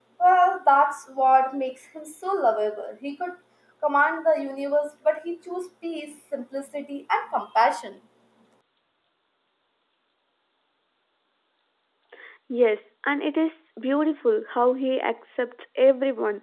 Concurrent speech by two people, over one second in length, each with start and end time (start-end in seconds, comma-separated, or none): none